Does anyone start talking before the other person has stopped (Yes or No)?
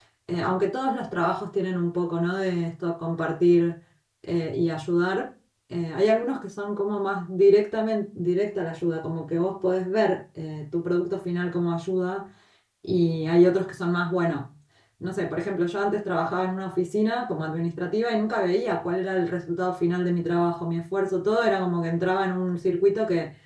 No